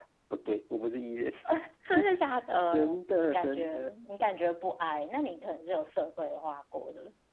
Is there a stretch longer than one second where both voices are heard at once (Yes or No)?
Yes